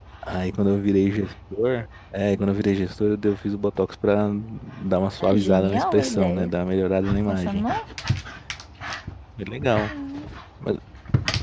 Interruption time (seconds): 5.2 s

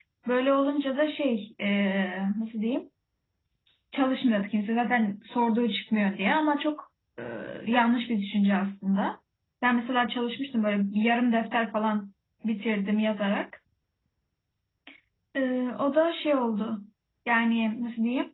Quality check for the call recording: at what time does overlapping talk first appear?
none

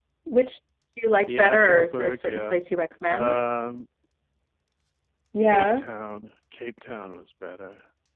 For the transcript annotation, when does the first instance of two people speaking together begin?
1.2 s

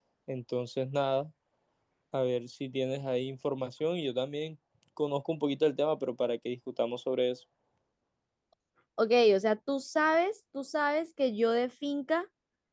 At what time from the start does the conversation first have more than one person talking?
none

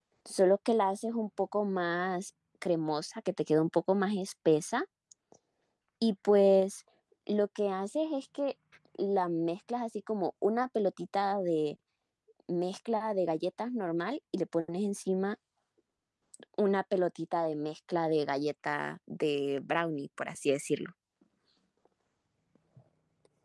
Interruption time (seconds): none

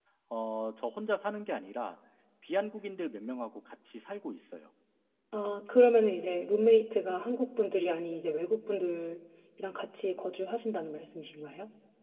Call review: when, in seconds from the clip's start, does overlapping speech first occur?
none

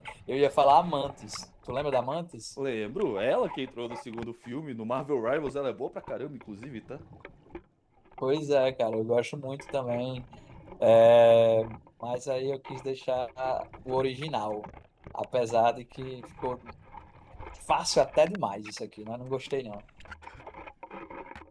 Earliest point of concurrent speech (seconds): none

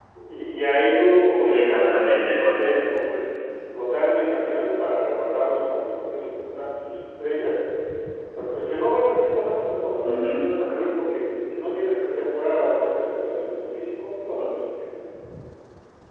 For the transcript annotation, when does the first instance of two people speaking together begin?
1.5 s

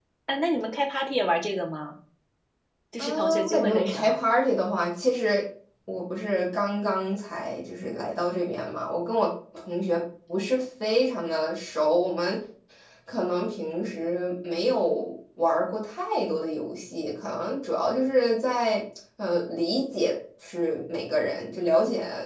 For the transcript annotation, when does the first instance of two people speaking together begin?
3.0 s

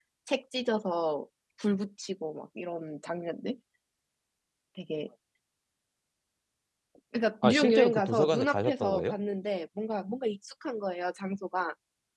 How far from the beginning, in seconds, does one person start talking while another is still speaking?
7.4 s

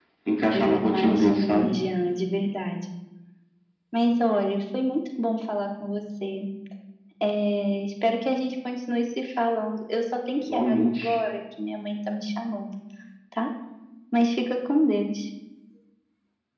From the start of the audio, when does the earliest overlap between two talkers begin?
0.5 s

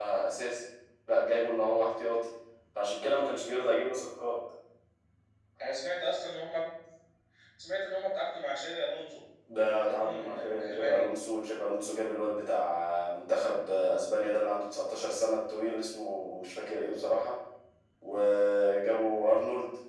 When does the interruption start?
9.9 s

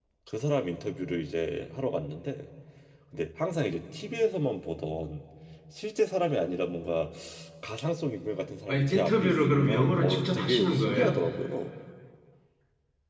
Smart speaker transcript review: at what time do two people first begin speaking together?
8.7 s

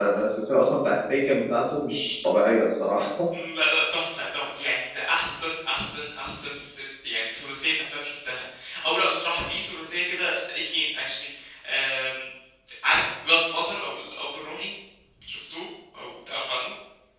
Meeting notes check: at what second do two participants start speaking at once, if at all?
none

